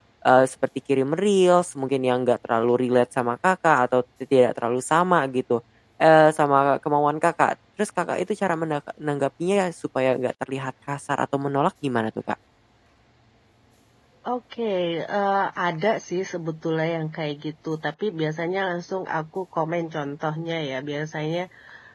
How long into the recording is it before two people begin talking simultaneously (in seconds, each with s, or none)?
none